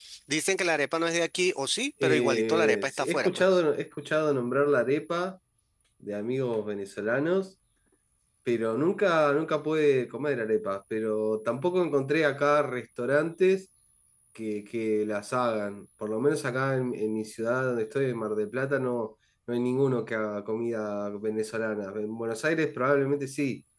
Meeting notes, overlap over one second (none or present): present